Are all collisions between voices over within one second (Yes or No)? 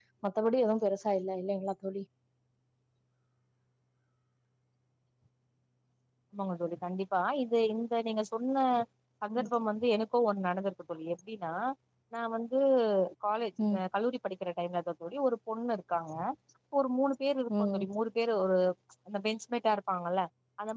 Yes